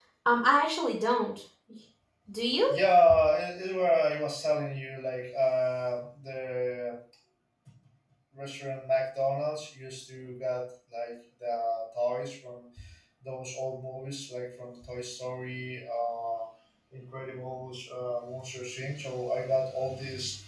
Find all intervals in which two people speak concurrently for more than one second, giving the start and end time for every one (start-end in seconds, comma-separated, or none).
none